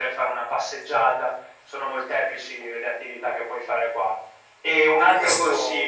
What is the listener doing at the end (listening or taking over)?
listening